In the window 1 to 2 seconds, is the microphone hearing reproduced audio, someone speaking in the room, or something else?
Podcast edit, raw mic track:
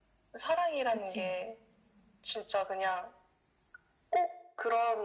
both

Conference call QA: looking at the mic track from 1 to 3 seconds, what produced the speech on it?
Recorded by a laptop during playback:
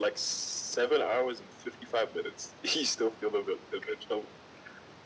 echo only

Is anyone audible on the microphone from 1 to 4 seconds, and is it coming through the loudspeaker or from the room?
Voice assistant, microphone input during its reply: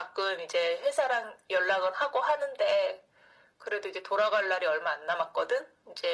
echo only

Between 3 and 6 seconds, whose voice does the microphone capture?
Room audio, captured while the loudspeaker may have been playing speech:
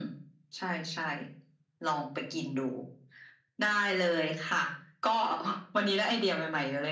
echo only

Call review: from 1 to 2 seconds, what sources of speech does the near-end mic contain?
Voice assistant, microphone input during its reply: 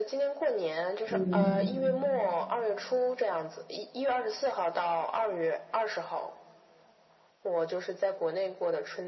both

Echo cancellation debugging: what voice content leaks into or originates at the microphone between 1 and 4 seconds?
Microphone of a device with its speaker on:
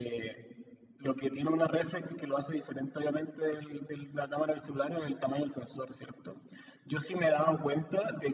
echo only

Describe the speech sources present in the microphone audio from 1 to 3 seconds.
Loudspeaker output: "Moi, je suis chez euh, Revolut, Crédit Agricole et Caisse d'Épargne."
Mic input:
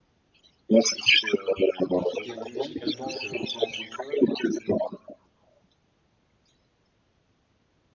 both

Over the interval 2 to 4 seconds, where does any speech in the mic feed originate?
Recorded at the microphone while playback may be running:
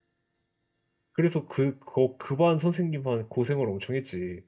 user only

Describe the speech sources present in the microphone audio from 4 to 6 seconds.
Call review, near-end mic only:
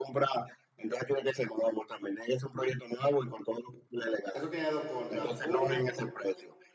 both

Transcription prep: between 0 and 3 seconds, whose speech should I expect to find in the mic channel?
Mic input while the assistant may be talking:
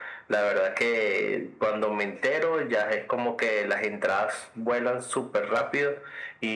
echo only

